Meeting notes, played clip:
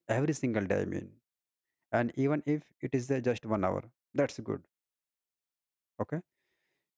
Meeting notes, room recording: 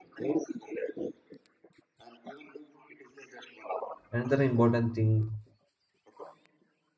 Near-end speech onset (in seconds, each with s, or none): 4.1 s